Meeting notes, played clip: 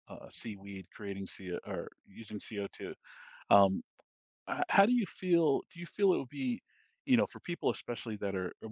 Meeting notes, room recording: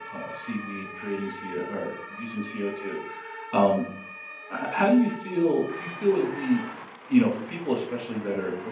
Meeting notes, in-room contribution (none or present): none